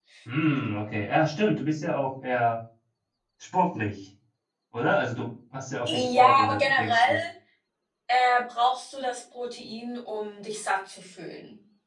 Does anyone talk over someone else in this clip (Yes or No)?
Yes